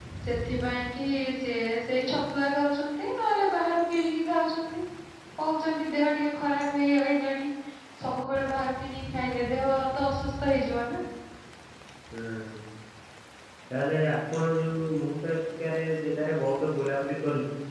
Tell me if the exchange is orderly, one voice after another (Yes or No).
Yes